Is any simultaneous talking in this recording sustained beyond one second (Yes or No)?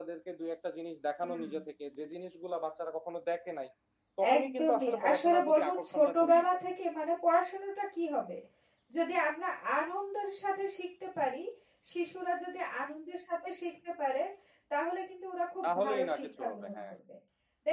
Yes